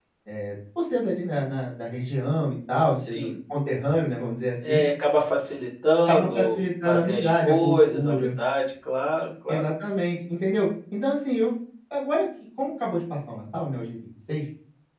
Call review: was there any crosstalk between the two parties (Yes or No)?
Yes